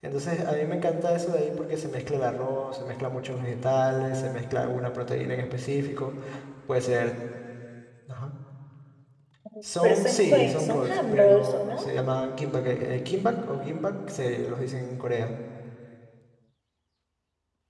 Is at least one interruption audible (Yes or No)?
Yes